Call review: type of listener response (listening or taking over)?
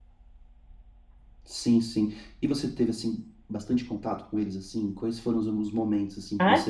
taking over